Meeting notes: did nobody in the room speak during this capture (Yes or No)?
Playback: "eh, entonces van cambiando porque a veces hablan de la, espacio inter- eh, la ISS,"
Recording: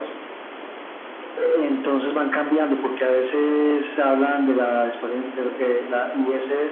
Yes